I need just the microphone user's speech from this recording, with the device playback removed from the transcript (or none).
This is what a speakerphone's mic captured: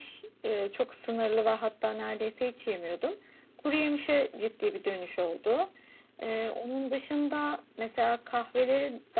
none